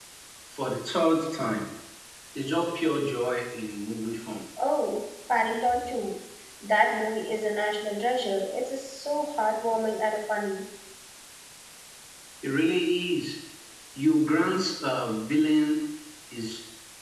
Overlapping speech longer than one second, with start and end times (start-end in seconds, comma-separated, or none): none